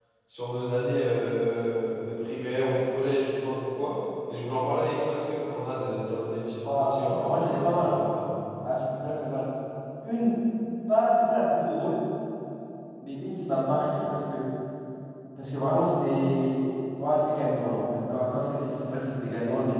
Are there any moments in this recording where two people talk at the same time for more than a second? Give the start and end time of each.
6.6-8.0

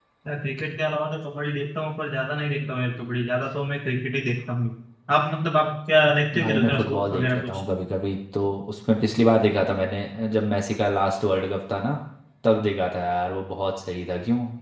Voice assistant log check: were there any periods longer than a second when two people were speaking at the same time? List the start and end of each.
6.4-7.6

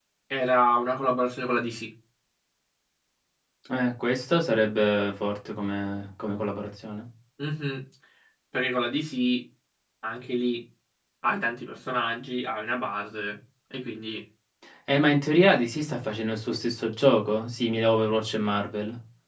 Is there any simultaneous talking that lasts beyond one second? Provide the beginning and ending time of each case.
none

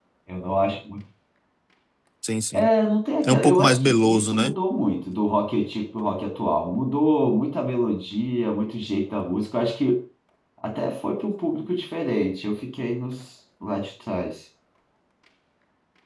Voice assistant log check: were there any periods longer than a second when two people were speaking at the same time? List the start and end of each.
3.2-4.6

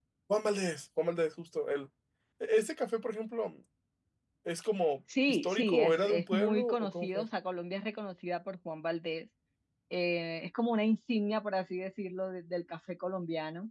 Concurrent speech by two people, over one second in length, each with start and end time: 5.3-7.2

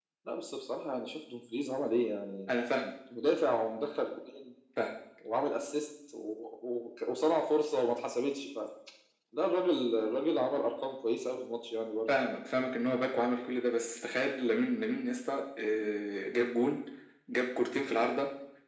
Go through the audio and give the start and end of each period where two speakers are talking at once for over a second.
none

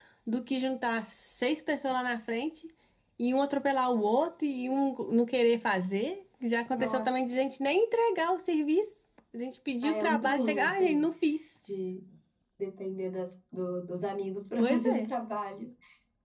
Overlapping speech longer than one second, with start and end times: 9.8-11.0

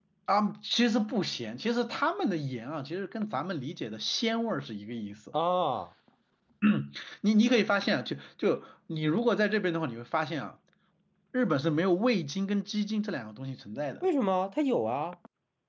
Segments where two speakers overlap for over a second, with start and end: none

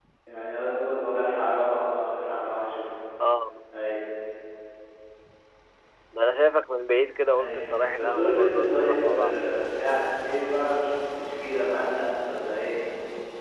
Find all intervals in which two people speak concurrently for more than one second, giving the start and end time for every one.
8.0-9.4

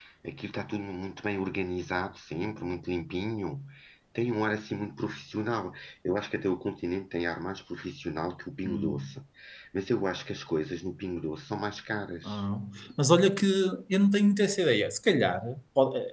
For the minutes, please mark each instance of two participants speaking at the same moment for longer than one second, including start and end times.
none

